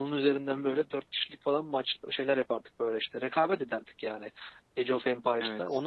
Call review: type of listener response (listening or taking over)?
listening